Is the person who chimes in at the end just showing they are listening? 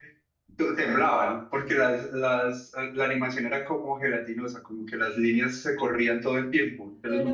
No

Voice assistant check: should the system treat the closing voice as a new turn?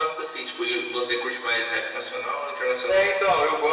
Yes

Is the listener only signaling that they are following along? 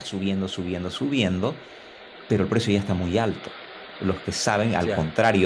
Yes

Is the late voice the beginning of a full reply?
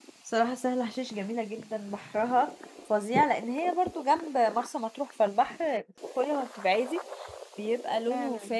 No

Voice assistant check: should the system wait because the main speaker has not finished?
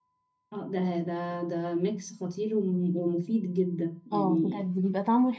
No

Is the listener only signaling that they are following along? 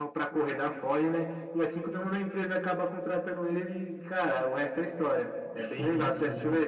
No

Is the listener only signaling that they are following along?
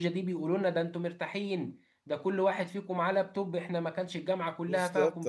Yes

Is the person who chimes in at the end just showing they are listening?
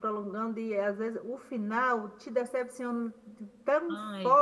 Yes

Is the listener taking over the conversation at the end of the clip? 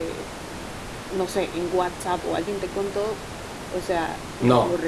No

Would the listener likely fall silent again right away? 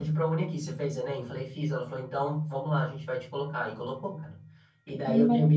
Yes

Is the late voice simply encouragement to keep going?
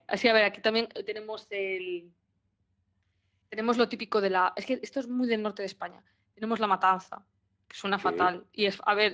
Yes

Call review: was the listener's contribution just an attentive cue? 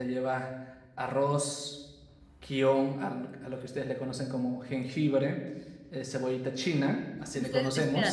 No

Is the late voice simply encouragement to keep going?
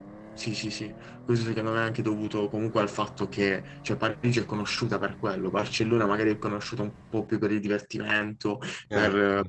Yes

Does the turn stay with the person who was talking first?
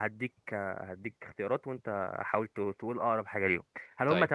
Yes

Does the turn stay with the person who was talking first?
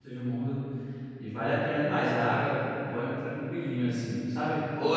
No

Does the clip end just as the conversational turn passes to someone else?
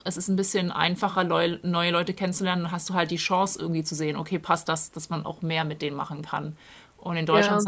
No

